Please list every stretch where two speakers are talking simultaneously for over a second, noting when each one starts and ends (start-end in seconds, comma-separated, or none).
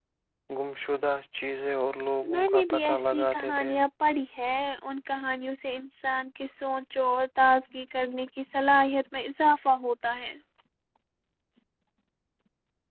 2.3-3.7